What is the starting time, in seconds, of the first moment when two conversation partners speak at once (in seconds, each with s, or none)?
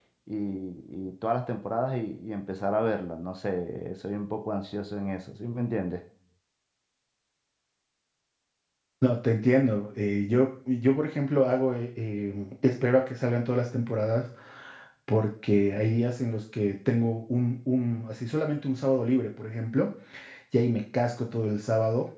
none